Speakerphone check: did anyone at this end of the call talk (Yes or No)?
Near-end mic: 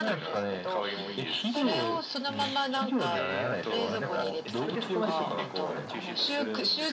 Yes